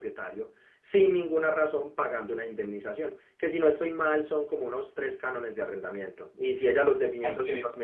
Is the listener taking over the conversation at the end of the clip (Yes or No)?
No